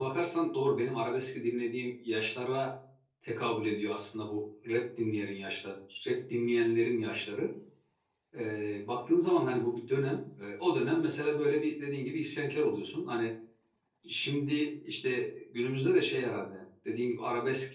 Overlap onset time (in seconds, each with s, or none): none